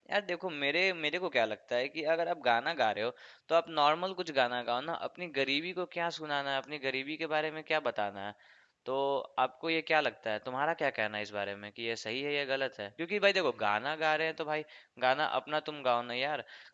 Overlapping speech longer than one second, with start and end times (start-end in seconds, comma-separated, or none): none